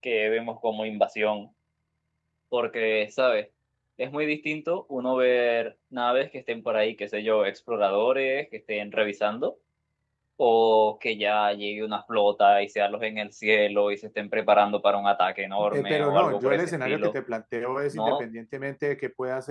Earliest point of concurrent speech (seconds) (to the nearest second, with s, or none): 16 s